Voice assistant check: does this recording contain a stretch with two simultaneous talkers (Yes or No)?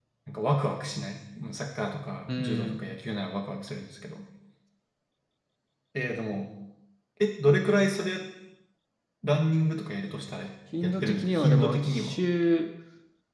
Yes